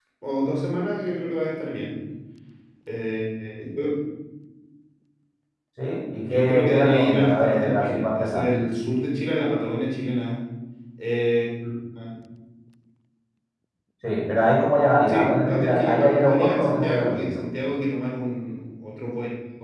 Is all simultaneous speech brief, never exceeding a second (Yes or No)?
No